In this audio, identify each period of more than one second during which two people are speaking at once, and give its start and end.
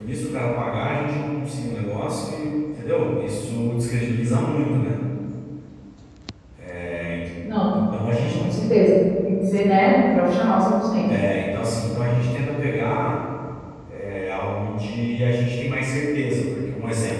none

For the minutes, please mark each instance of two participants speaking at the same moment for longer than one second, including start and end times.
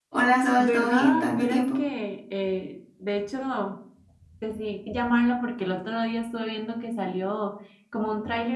0.6-1.8

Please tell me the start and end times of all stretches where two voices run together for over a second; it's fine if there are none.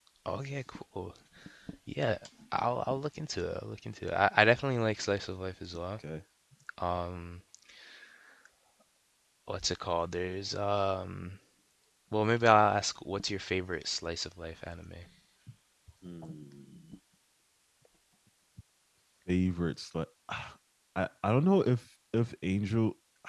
none

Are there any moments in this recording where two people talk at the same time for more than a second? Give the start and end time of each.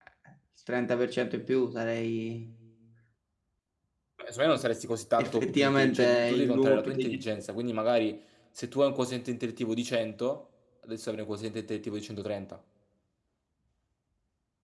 5.2-7.2

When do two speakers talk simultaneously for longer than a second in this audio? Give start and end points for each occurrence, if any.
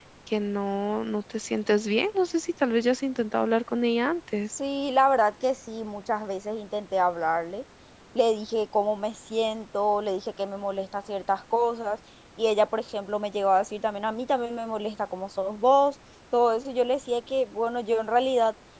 none

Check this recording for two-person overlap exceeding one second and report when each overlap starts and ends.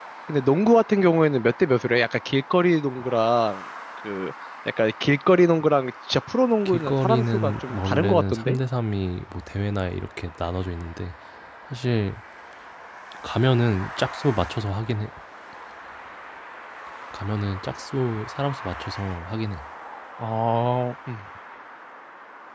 6.7-8.6

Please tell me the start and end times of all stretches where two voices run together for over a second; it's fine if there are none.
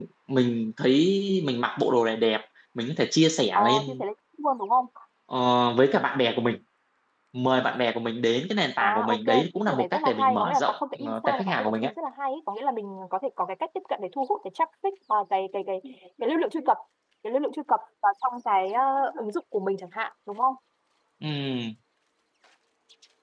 8.8-11.9

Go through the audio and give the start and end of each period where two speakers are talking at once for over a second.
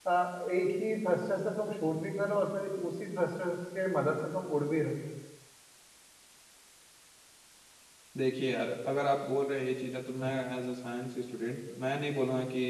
none

